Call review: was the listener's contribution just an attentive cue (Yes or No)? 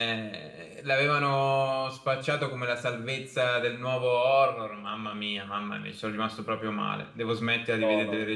Yes